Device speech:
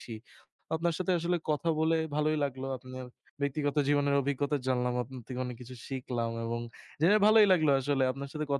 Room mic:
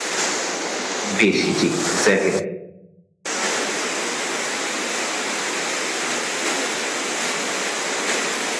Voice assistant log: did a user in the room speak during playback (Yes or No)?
Yes